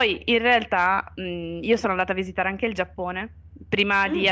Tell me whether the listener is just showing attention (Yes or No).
Yes